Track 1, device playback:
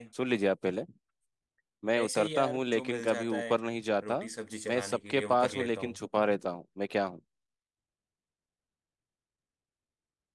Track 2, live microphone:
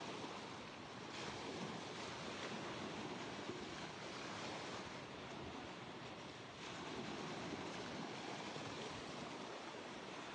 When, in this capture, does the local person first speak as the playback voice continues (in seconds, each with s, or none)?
none